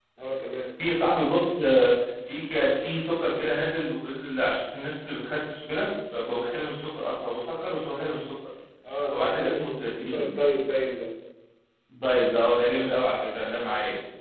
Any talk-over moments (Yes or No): Yes